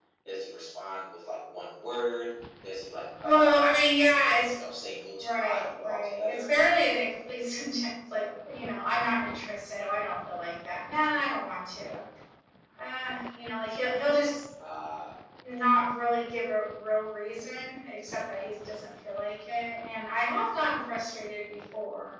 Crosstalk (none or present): present